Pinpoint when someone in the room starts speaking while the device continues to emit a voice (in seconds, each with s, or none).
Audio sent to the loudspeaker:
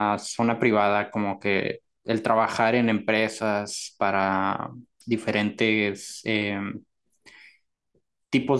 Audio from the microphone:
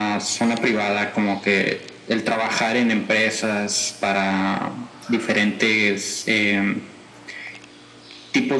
none